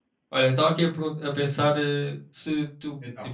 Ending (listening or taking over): listening